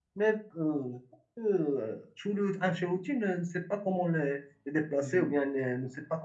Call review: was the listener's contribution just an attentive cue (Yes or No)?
Yes